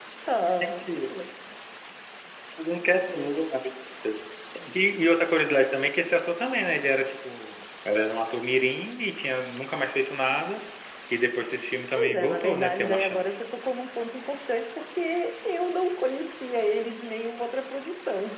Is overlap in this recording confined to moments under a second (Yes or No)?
No